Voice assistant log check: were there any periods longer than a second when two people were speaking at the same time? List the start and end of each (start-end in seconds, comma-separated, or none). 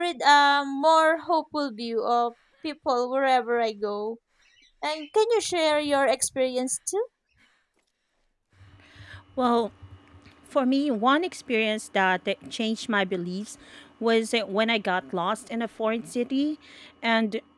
none